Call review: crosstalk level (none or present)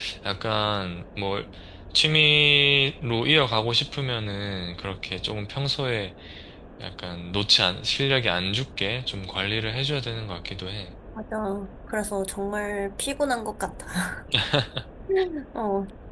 none